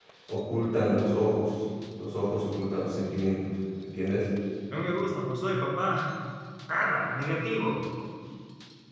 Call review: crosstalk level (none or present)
none